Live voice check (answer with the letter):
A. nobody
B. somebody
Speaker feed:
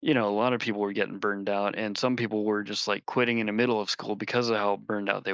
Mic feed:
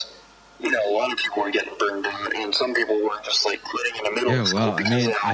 B